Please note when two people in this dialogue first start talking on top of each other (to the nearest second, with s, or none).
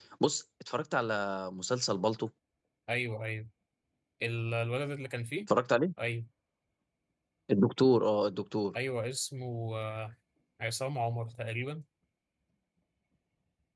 none